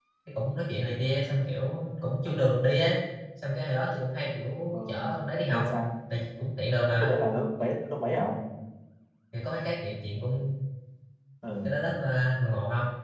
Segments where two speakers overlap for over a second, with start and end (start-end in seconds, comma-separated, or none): none